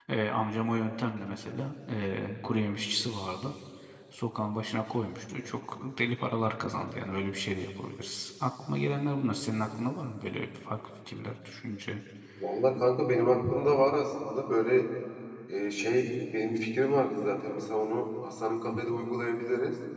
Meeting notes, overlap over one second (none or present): none